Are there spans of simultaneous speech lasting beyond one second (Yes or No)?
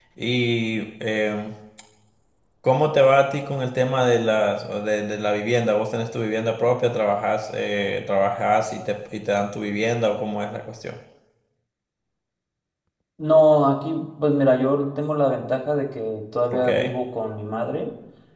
No